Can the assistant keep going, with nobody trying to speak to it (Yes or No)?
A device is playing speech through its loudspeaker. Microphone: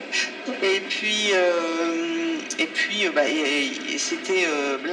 Yes